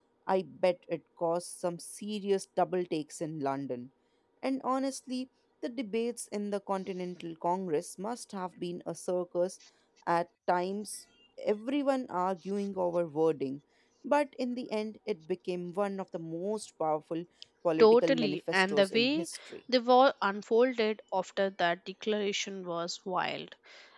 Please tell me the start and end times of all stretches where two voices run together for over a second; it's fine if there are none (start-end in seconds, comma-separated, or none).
17.8-19.3